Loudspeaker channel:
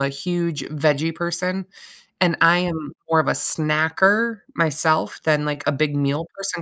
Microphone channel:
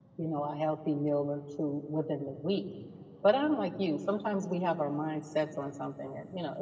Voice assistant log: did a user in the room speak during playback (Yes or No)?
Yes